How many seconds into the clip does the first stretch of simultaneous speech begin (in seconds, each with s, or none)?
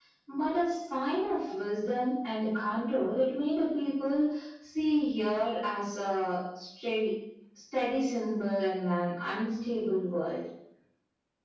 none